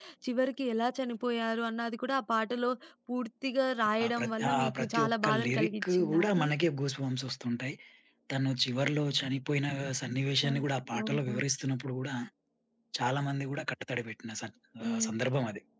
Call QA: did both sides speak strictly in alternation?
No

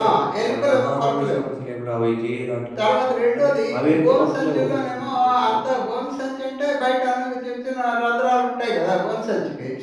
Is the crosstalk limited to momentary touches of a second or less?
No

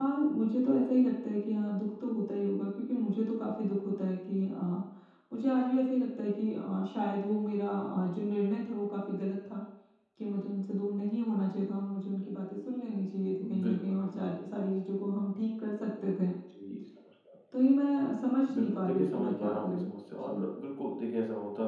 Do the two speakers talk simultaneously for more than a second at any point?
Yes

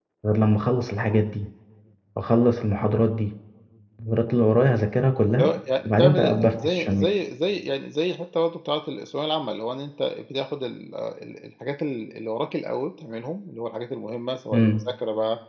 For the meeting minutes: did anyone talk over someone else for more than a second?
Yes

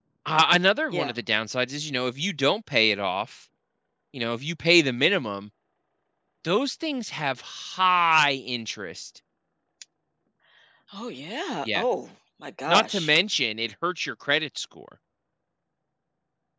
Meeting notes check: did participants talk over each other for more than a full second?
No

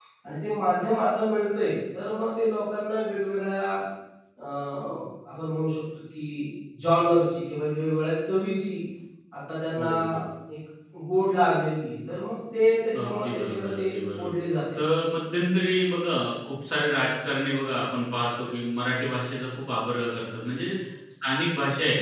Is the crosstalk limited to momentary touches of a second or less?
No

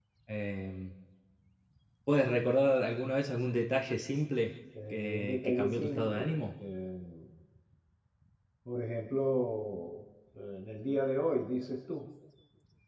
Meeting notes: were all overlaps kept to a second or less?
No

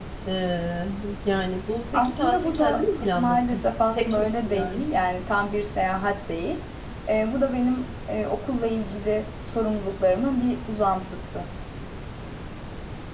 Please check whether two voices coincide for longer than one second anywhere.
Yes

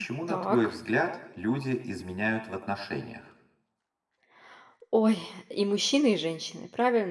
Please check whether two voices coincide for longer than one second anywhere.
No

